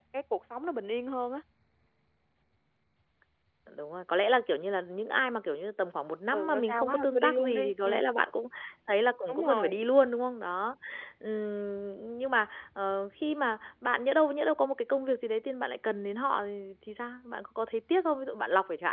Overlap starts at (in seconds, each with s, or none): 6.3 s